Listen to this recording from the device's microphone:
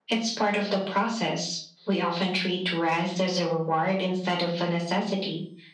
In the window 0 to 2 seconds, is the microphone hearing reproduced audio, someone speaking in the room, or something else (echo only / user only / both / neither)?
echo only